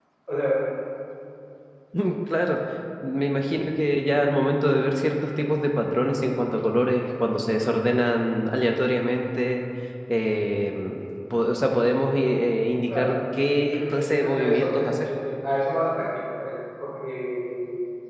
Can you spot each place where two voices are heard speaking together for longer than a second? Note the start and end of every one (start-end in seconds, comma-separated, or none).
13.6-14.9